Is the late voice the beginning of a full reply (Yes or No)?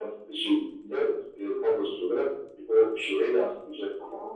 Yes